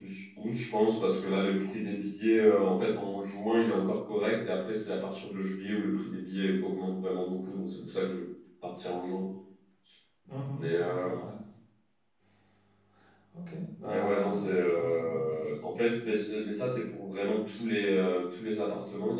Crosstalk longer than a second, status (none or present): present